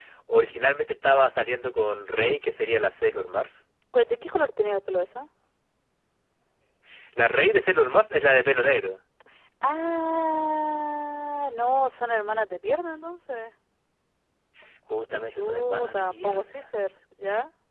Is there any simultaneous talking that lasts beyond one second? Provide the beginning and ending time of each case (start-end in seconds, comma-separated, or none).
15.3-16.6